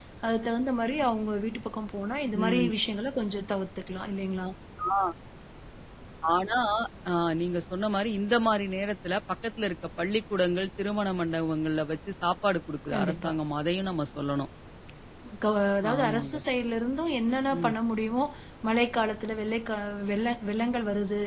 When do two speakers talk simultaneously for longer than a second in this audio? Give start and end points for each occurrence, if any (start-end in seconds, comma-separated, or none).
none